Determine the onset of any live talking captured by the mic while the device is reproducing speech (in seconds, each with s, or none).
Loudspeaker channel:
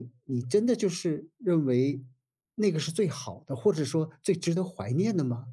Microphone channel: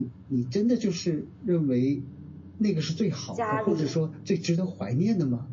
3.3 s